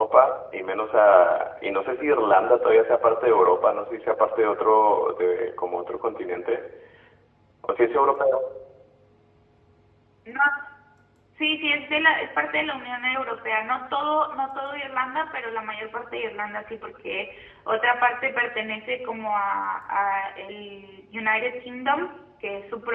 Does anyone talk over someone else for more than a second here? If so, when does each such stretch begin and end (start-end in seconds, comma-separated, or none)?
none